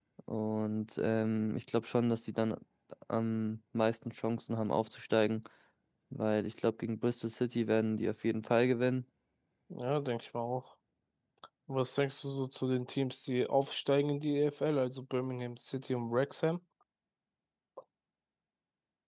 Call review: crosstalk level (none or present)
none